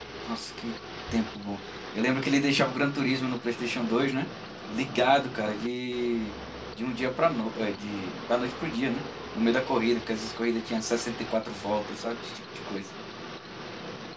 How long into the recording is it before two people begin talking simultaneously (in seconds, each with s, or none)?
none